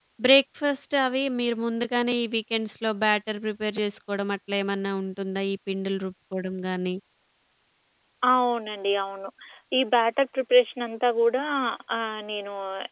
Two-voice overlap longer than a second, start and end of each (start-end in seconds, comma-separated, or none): none